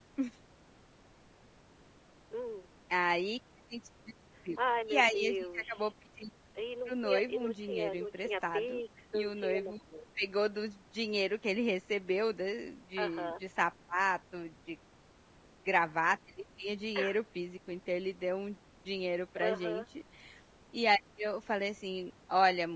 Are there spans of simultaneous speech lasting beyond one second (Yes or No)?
Yes